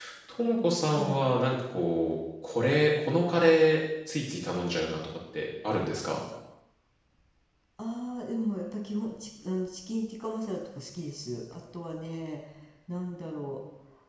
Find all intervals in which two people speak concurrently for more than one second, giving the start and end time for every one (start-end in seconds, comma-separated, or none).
none